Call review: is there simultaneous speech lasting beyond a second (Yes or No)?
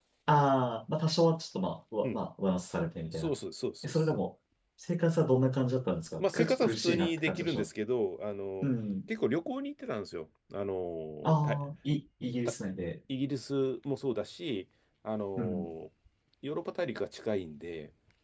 Yes